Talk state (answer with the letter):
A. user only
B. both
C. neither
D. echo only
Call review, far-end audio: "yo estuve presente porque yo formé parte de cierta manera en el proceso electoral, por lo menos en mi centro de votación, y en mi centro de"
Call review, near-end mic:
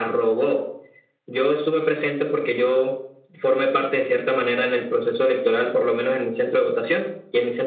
D